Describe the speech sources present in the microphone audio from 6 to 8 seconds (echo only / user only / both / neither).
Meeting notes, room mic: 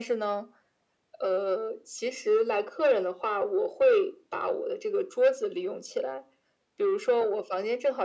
echo only